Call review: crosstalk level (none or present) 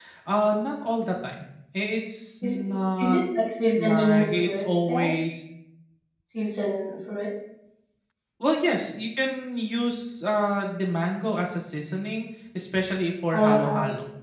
present